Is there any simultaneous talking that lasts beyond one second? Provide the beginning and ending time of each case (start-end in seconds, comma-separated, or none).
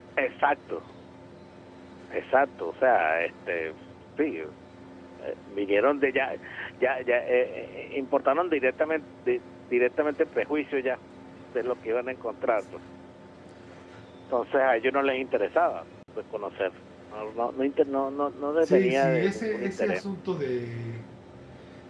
18.6-20.0